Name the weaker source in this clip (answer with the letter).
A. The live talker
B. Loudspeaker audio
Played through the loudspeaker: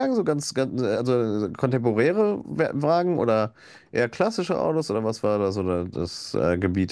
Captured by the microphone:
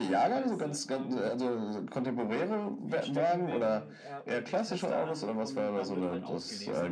A